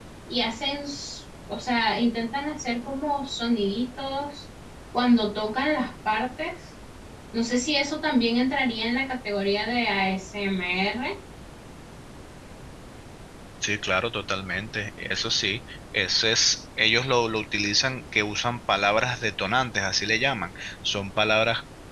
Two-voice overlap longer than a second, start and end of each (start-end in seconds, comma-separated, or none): none